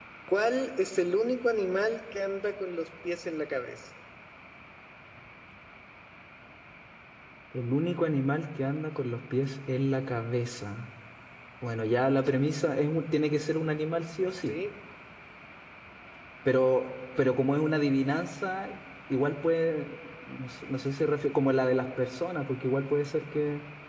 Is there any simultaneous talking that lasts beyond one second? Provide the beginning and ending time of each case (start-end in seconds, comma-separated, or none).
none